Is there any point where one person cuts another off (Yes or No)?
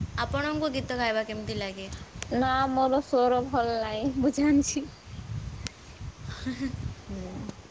No